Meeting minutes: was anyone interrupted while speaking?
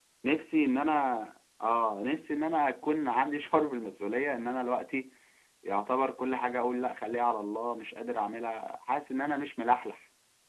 No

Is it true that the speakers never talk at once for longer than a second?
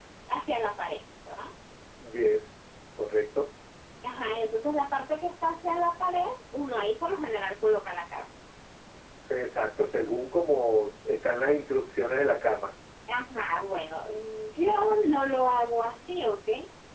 Yes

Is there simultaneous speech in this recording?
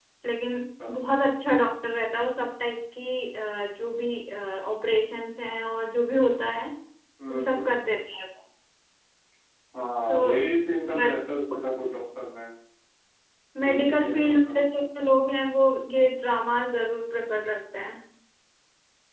Yes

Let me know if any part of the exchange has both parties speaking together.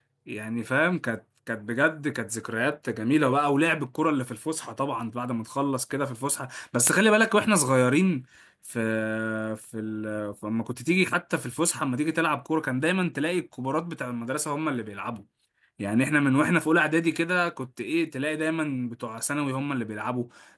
No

